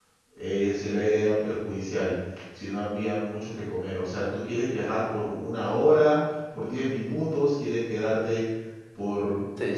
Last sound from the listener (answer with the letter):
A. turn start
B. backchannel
A